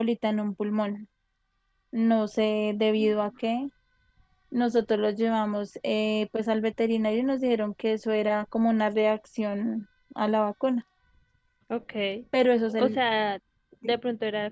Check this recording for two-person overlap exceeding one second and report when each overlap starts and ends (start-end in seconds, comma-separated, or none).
none